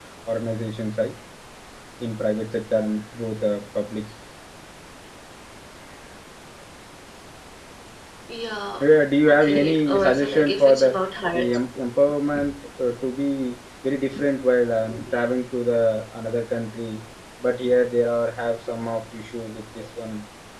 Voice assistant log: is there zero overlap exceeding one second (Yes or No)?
No